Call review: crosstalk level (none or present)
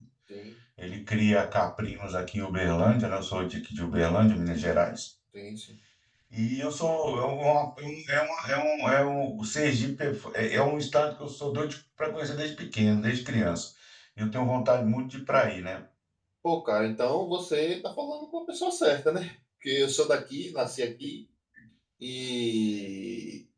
none